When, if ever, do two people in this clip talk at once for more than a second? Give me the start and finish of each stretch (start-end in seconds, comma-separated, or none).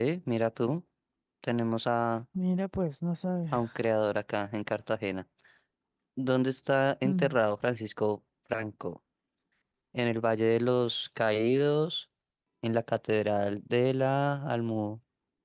none